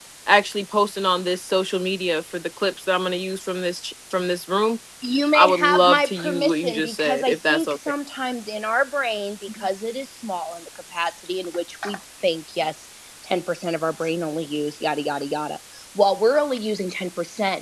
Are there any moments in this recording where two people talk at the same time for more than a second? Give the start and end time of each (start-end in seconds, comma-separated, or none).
5.3-7.7